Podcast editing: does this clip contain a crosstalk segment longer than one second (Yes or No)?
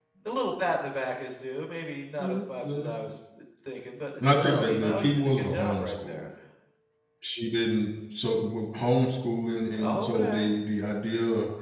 Yes